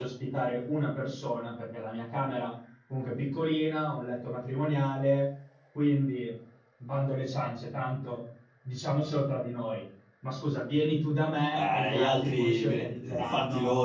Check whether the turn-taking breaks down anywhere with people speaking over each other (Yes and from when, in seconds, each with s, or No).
Yes, from 11.5 s